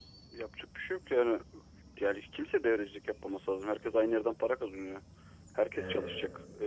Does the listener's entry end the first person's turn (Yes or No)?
No